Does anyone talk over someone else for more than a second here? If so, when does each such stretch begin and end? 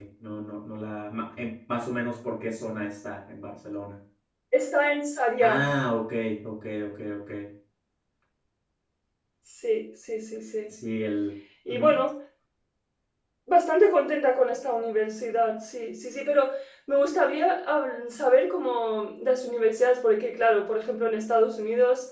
none

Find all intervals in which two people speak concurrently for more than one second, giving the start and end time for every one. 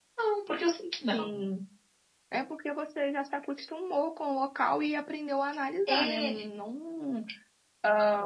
none

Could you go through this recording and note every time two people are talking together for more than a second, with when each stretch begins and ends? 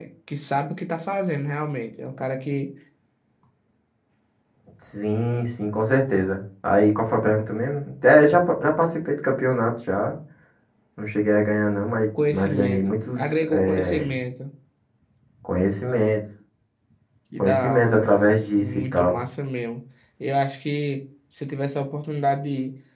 12.3-14.1, 17.4-19.2

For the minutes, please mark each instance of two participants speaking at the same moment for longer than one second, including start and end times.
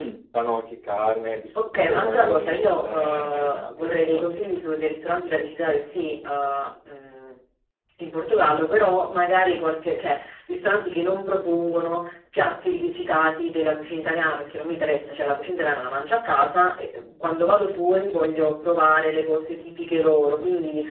1.8-4.5

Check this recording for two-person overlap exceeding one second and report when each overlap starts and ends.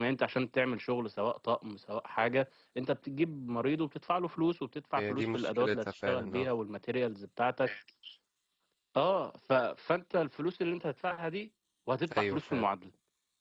5.0-6.5

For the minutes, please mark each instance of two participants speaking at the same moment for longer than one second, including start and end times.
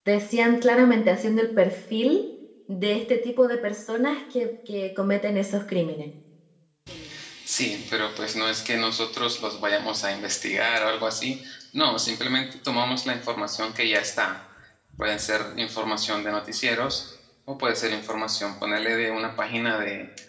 none

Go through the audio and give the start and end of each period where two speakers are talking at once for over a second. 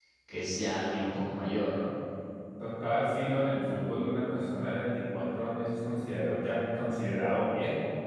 none

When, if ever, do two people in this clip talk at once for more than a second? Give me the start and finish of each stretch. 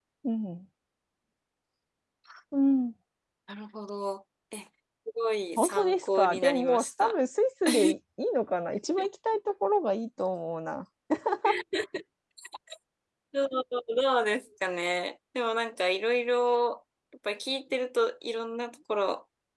5.6-7.2

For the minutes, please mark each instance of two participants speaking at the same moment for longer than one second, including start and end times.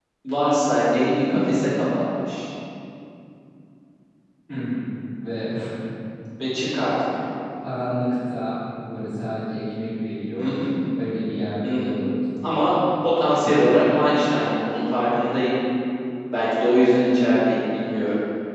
none

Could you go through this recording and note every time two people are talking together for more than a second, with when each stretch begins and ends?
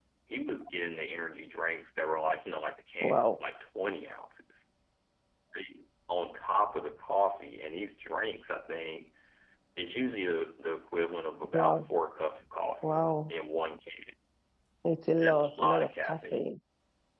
15.2-16.4

